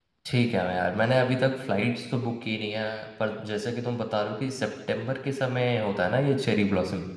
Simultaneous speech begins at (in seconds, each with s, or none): none